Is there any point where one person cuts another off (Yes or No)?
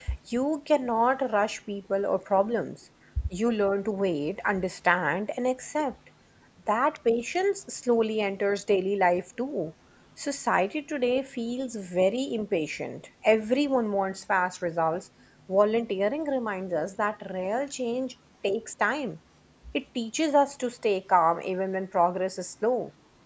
No